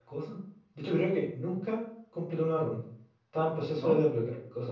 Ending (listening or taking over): listening